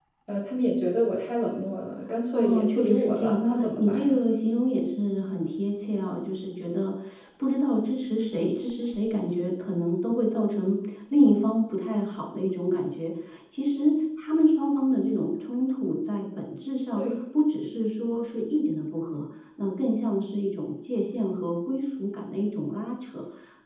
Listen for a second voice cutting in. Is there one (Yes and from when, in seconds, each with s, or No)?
Yes, from 2.3 s